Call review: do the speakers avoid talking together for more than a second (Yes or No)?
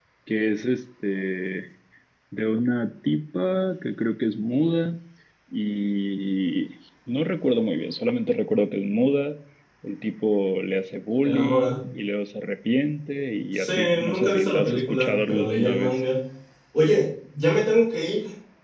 No